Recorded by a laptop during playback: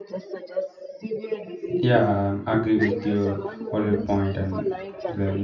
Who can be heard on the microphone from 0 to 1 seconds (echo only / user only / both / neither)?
echo only